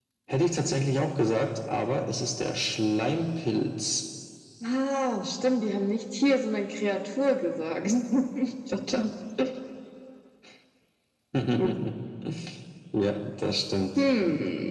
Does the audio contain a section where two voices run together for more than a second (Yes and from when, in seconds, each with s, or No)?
No